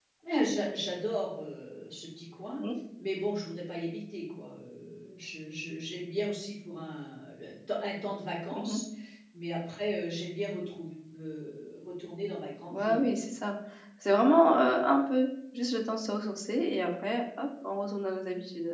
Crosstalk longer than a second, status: none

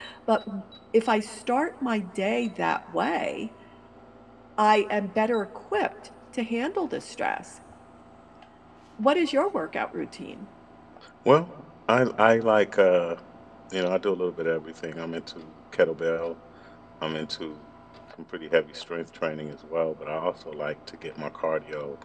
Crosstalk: none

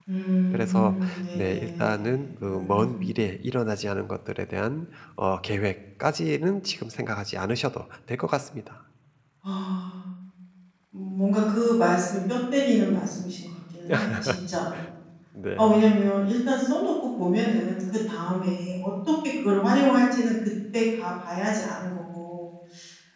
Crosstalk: present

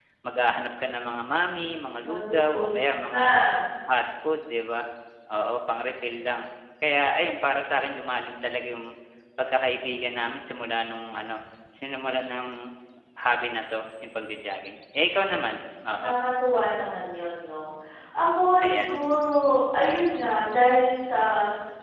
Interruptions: present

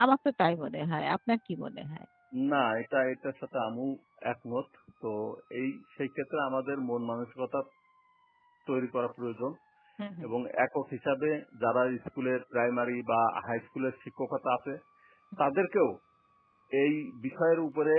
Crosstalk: none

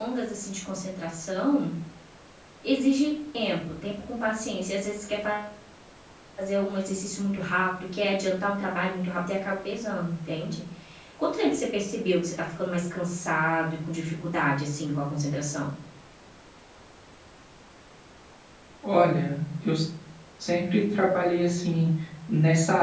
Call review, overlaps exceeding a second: none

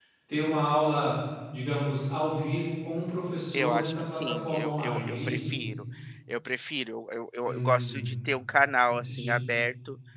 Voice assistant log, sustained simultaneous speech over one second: present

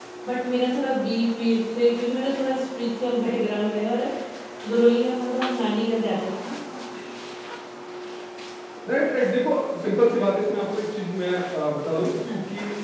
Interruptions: none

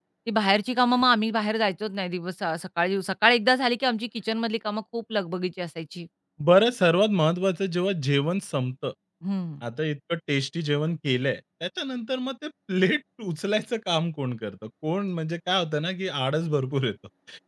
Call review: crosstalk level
none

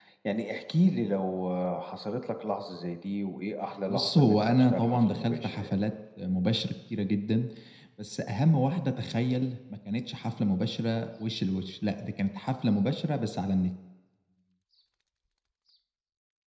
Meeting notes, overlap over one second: present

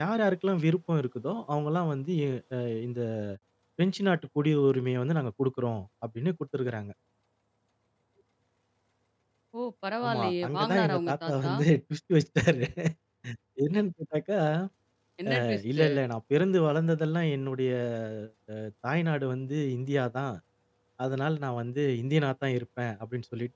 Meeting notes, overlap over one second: present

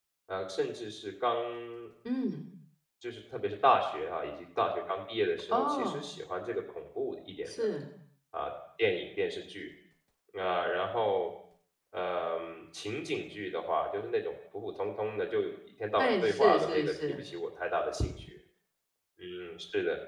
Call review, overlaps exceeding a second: present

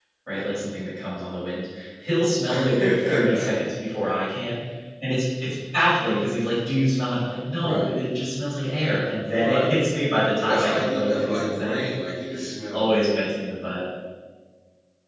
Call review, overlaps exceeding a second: present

